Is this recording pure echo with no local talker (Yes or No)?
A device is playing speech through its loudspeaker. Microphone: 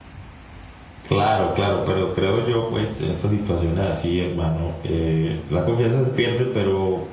No